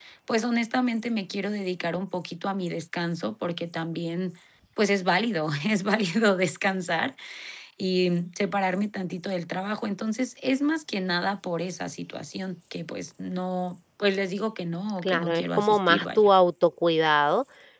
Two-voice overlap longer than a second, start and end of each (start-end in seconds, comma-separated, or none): 15.0-16.3